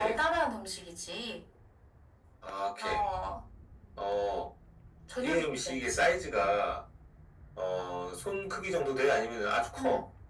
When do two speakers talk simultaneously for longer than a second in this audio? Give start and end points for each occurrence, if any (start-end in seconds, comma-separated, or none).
5.2-6.5